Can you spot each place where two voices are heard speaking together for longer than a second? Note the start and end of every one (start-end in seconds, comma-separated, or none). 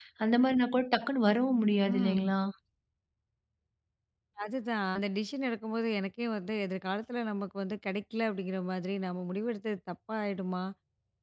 none